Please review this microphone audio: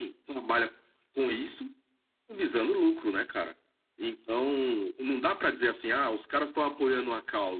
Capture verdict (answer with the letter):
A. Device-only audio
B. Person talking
A